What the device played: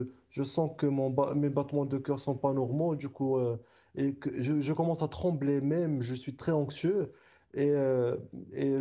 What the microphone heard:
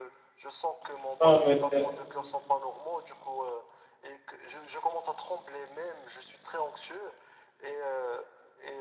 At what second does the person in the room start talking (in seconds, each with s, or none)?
1.2 s